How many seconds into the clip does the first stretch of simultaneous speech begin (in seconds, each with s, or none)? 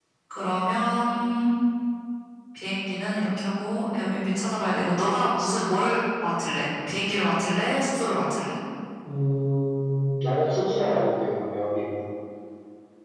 none